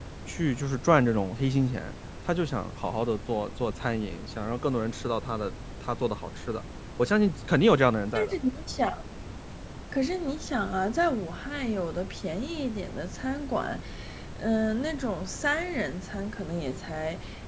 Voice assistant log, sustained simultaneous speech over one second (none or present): none